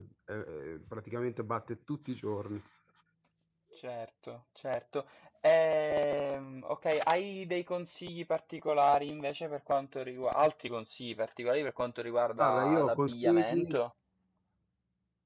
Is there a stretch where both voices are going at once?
Yes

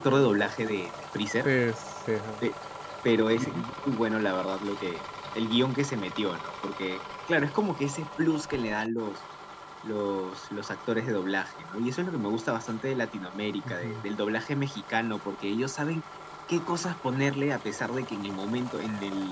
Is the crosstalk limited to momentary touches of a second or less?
Yes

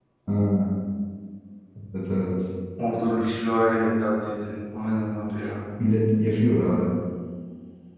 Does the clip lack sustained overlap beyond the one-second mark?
Yes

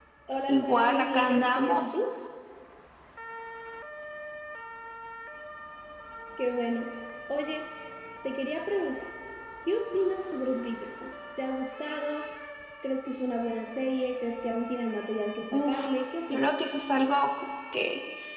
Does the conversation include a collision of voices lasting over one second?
Yes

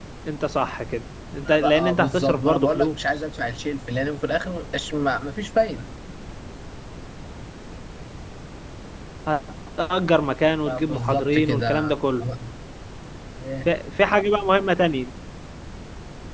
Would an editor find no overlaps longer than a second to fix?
No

